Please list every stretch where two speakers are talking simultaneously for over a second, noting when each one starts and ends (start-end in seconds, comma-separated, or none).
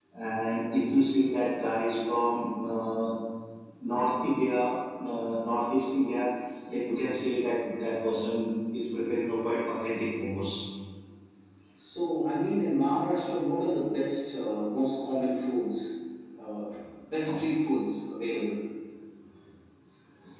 none